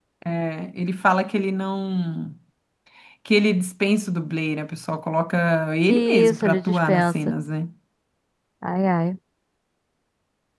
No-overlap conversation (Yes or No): No